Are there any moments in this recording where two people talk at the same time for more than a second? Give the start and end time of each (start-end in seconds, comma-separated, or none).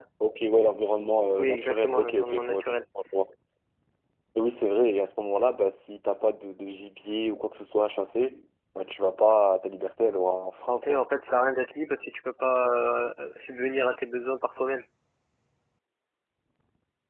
1.4-2.6